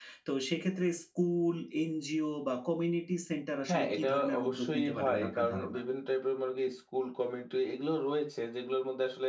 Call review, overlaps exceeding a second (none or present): present